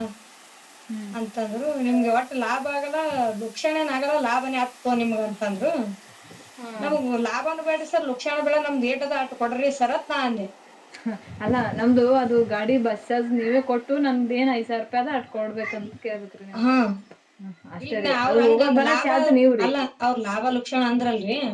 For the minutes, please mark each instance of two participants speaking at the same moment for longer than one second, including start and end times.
17.8-19.1

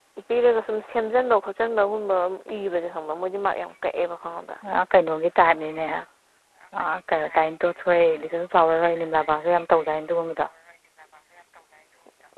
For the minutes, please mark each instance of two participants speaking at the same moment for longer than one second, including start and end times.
none

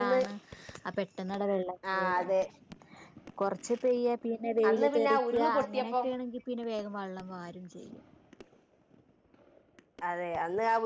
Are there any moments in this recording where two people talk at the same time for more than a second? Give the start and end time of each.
4.7-6.1

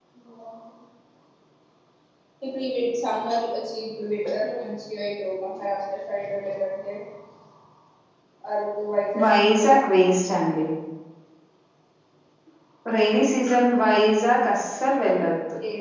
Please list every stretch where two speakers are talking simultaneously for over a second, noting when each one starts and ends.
9.2-10.5

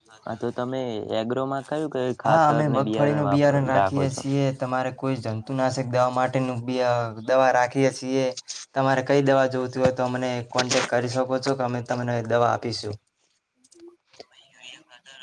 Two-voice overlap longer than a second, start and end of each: 2.3-4.2

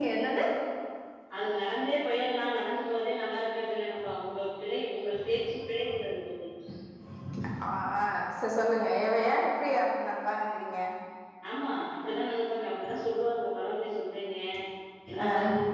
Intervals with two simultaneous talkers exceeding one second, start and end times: none

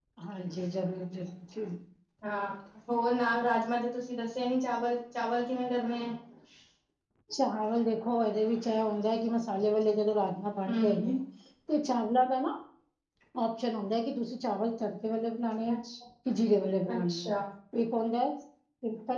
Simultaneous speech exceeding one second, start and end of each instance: none

